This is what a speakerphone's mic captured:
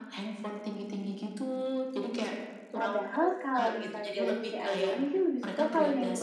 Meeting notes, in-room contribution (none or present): present